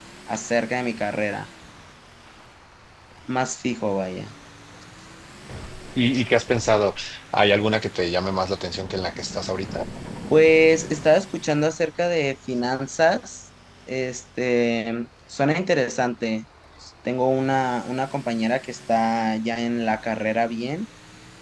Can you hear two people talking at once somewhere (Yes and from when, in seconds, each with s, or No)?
No